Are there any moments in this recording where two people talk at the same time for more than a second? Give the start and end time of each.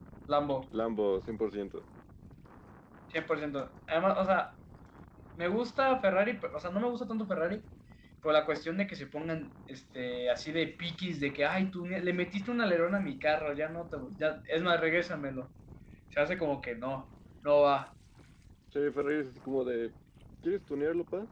none

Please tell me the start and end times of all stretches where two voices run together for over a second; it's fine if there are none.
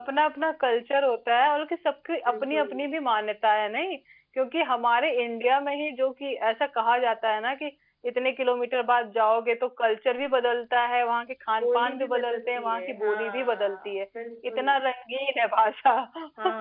11.6-13.9

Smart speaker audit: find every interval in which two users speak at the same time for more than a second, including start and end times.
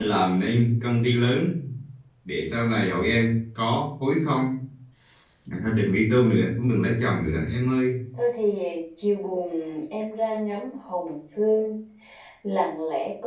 none

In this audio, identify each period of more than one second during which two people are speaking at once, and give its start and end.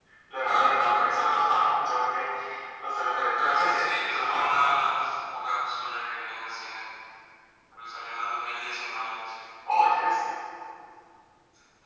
3.5-4.8

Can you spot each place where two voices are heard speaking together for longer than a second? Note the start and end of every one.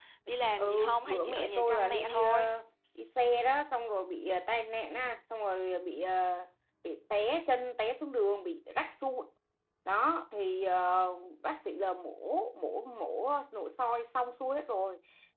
0.6-2.5

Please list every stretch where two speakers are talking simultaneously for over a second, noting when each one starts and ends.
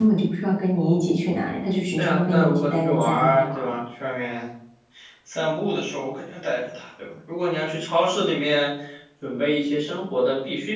2.0-3.7

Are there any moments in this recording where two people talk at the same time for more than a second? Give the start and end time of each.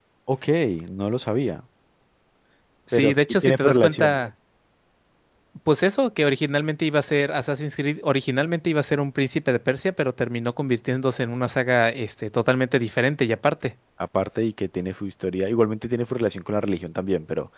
2.9-4.2

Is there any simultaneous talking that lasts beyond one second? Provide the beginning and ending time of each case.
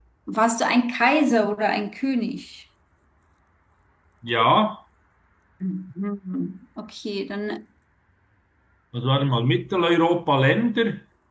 none

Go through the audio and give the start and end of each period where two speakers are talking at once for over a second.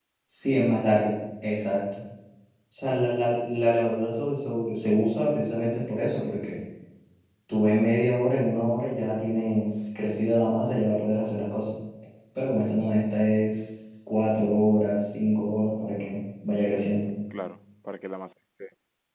none

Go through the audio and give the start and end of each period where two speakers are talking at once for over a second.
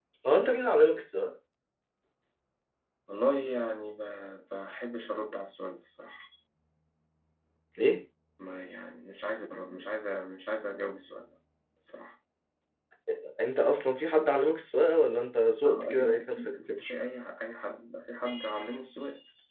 15.7-16.9

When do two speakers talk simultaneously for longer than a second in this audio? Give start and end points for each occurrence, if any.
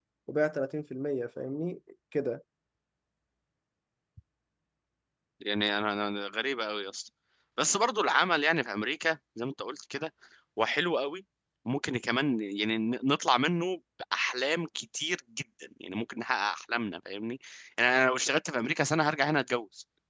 none

